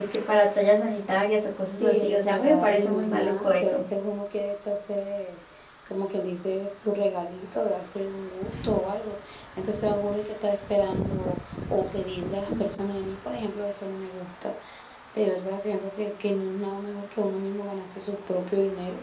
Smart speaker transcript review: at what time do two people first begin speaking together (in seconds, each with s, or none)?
1.7 s